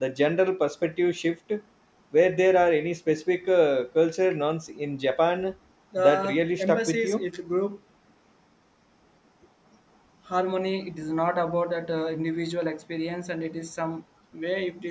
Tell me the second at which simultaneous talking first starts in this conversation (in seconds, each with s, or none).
6.0 s